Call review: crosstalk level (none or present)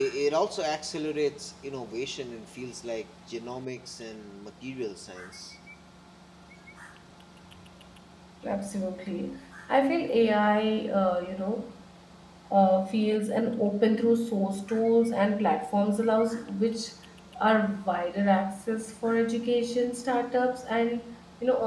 none